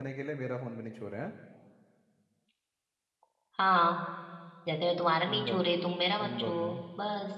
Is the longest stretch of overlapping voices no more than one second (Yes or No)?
Yes